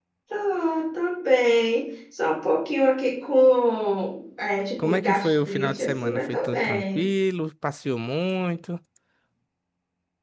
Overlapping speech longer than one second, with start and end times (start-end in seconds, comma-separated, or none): 4.8-7.1